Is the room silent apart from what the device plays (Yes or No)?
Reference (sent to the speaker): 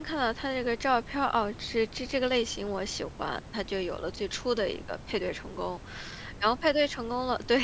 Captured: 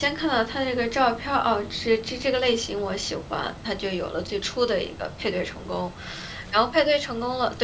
Yes